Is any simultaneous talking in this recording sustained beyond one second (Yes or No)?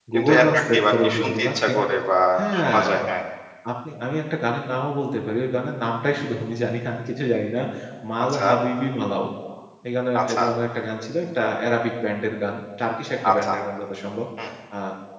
Yes